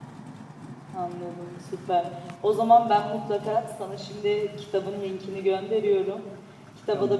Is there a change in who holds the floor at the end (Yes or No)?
No